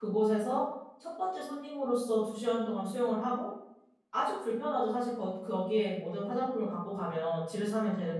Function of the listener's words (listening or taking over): listening